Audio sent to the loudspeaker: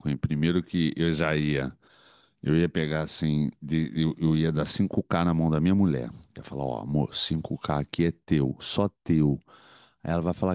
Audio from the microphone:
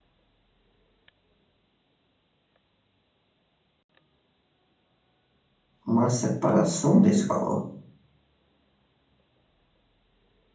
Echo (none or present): none